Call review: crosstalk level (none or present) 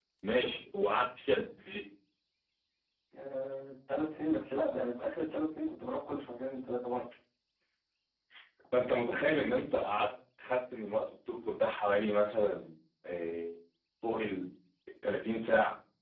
none